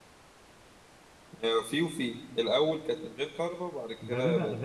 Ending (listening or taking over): taking over